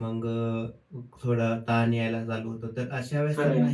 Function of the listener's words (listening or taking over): listening